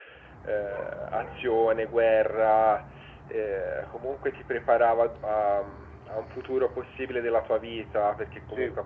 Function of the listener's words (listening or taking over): listening